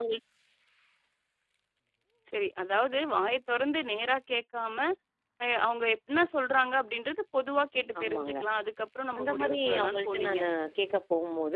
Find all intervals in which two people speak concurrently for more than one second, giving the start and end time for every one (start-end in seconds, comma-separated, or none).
9.2-10.4